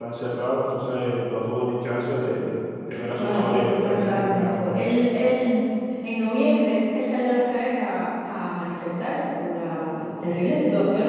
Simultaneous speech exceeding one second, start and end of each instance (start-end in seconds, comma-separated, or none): 3.2-4.7